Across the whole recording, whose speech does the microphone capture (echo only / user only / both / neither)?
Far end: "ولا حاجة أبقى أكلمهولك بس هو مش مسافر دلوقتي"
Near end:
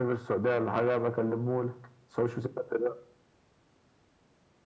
echo only